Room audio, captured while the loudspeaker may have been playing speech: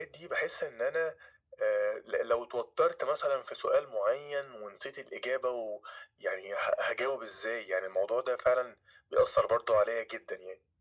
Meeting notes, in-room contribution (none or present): none